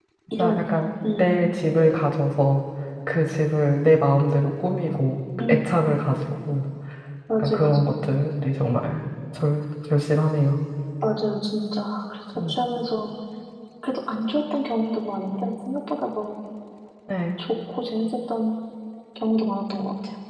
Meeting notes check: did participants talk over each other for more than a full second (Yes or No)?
No